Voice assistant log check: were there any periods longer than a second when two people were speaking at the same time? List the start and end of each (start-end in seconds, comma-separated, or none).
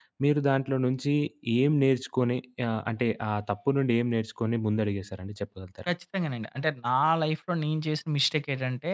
none